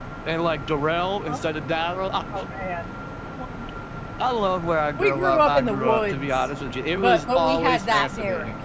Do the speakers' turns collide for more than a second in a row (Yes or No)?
Yes